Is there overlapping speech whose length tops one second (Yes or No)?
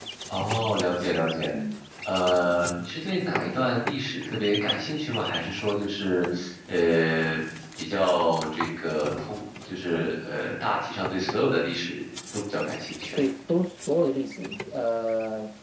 No